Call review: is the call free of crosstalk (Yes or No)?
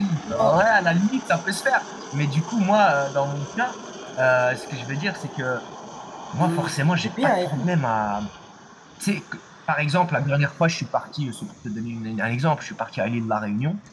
No